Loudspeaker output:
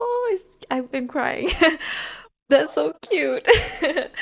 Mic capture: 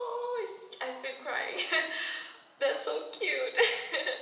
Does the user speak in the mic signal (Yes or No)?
No